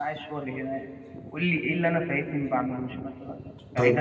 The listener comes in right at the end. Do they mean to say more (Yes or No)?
Yes